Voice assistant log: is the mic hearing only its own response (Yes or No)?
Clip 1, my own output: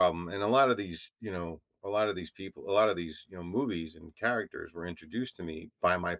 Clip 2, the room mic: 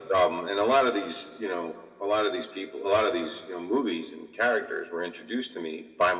Yes